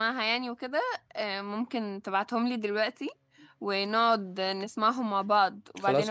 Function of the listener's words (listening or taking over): taking over